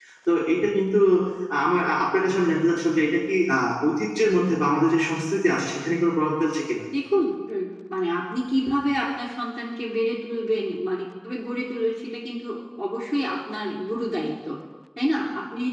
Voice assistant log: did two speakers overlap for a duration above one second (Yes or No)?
No